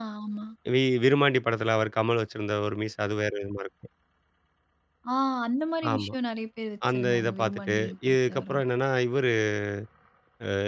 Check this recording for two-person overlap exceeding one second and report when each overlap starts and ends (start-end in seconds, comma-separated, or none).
6.9-8.6